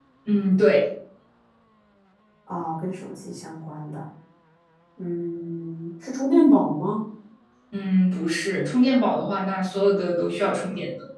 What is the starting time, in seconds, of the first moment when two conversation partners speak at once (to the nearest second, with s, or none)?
none